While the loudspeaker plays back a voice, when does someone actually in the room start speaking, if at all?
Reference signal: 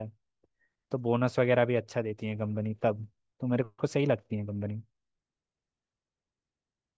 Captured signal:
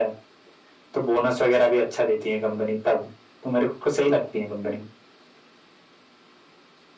none

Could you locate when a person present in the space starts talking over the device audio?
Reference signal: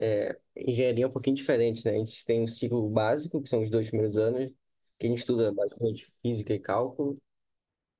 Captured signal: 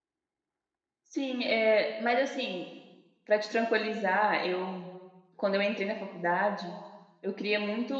1.0 s

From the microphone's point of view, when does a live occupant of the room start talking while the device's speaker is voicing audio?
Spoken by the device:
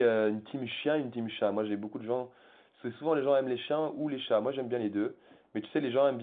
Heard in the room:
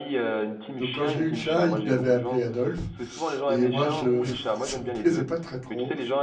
0.7 s

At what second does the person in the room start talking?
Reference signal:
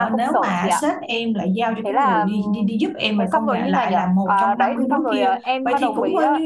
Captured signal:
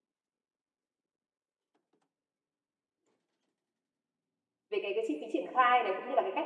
4.7 s

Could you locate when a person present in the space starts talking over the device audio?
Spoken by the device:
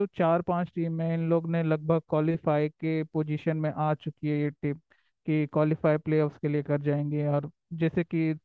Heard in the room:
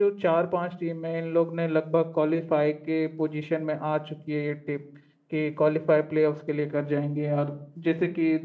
none

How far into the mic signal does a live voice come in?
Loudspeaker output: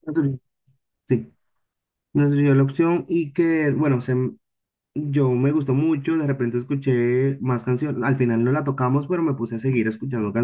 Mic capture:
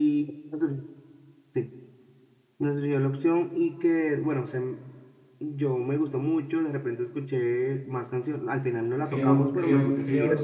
9.0 s

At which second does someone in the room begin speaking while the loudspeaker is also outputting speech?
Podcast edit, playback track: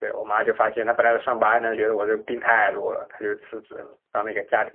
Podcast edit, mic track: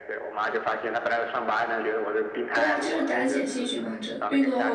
2.5 s

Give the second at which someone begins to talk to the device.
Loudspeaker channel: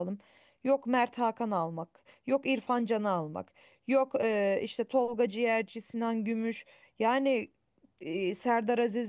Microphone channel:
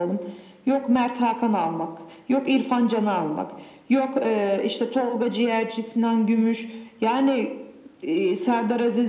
none

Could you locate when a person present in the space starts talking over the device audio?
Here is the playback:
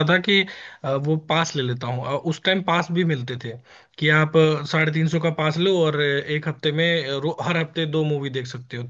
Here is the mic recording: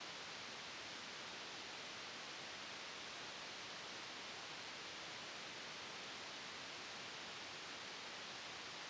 none

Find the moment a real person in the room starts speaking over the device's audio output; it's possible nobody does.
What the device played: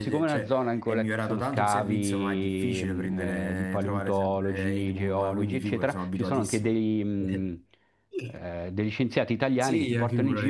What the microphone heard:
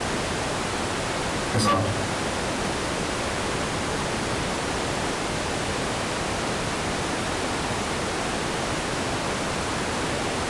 1.6 s

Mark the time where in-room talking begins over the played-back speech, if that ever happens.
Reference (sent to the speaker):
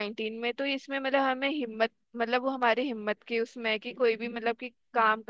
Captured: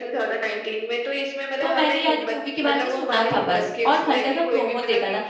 1.6 s

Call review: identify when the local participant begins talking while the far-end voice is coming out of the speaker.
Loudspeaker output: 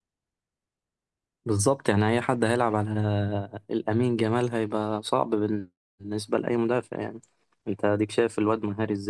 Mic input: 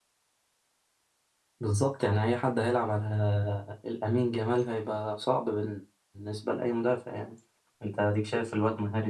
none

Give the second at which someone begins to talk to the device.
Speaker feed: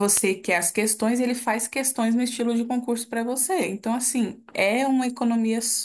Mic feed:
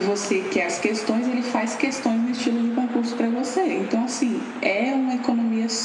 none

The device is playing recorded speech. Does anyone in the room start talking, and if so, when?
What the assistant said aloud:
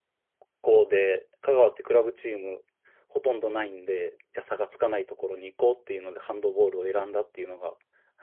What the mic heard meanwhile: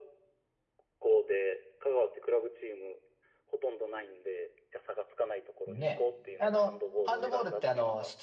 5.7 s

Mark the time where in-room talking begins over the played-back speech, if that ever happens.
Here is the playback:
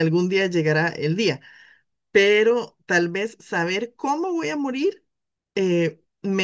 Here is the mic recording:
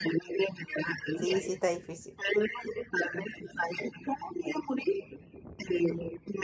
1.1 s

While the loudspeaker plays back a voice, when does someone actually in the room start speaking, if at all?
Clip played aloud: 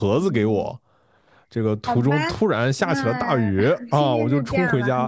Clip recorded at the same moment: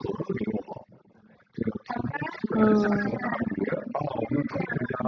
2.5 s

